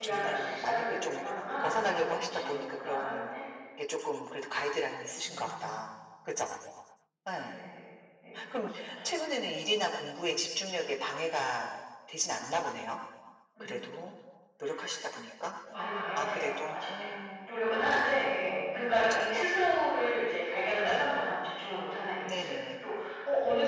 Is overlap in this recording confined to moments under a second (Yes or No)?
No